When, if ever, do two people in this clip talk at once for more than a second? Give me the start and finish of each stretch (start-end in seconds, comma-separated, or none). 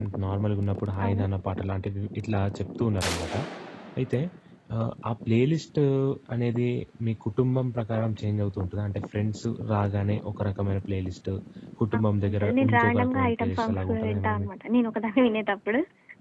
11.9-14.5